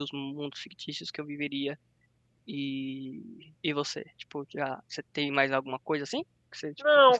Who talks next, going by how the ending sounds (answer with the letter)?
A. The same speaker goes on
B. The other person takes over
B